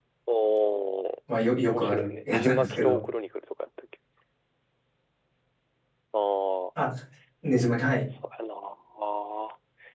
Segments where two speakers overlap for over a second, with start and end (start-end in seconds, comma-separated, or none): 1.7-3.0